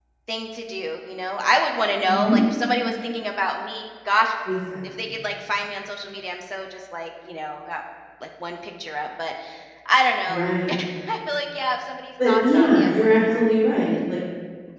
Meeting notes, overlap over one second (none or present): present